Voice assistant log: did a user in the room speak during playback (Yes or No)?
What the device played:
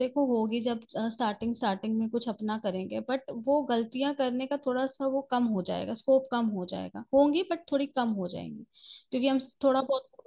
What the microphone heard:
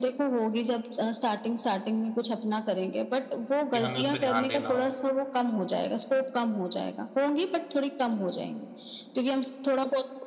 Yes